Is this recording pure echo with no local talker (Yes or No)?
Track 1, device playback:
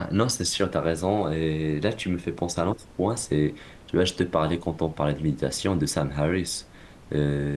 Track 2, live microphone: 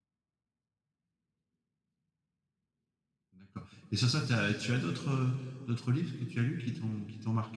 No